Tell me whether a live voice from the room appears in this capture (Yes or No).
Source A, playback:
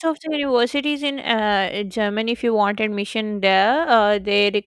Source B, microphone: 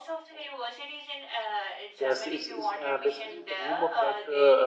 Yes